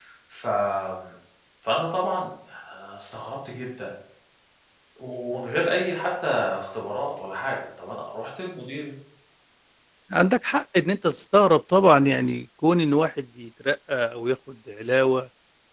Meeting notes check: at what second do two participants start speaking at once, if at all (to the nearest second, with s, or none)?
none